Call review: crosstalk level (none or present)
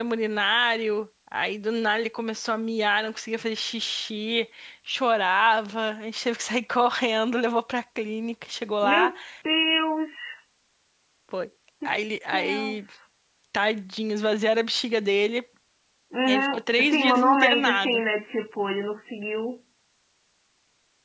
present